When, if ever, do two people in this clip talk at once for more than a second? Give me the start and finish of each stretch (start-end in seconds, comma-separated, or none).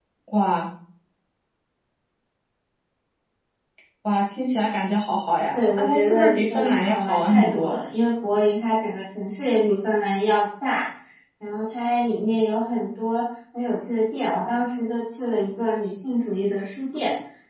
5.5-7.8